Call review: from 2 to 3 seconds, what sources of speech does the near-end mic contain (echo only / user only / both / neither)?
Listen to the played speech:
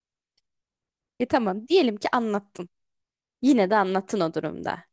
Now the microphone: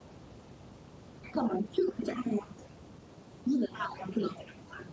echo only